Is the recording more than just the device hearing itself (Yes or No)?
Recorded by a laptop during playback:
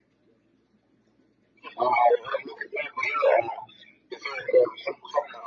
No